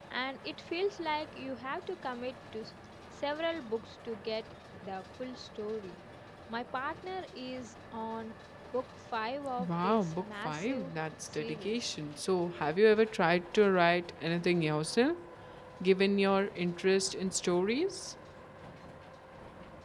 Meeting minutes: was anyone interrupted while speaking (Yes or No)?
Yes